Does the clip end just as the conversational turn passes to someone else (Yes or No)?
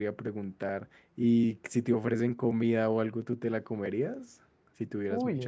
Yes